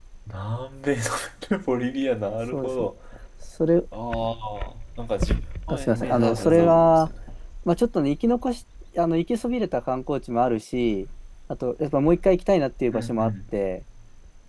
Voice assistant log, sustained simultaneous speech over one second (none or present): present